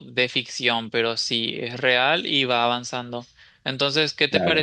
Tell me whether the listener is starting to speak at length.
No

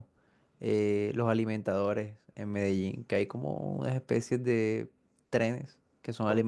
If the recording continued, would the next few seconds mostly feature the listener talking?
No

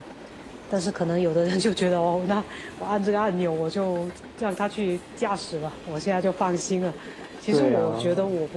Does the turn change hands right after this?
No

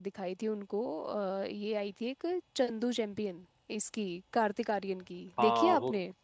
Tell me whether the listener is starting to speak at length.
Yes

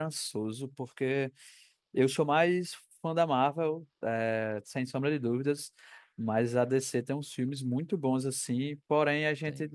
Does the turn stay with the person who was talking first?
Yes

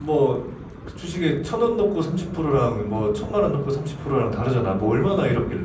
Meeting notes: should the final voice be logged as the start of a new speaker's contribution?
Yes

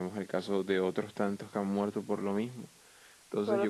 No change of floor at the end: No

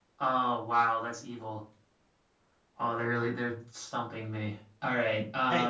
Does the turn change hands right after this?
Yes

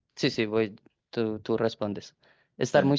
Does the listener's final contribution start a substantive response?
No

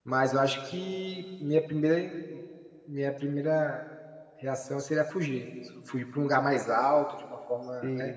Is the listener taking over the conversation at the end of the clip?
No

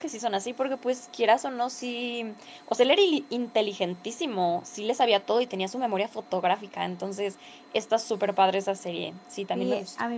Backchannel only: No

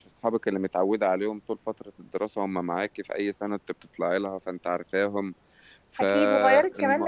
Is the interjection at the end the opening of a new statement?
Yes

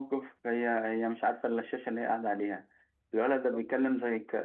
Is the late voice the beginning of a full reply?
No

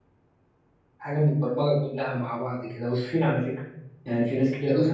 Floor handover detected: Yes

